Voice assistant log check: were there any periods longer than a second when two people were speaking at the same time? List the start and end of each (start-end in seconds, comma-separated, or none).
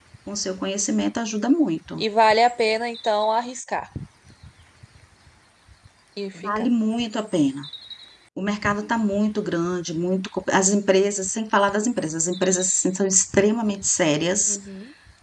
none